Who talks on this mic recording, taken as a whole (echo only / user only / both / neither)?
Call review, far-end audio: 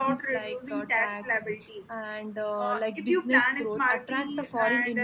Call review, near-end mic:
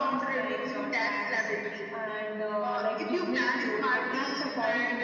echo only